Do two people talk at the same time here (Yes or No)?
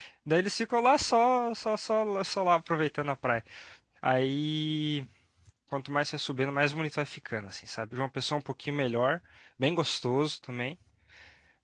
No